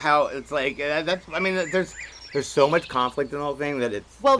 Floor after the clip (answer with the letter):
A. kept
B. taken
B